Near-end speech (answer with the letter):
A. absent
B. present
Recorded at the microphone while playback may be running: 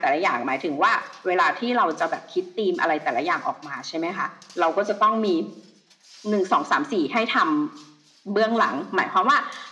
A